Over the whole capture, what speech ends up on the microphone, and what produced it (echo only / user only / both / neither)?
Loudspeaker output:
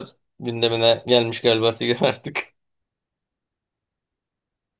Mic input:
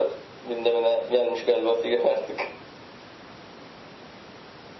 echo only